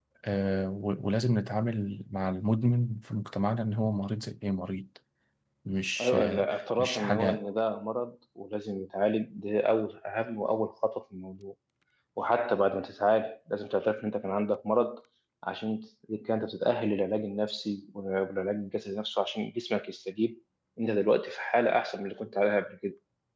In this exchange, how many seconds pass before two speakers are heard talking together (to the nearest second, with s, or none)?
6 s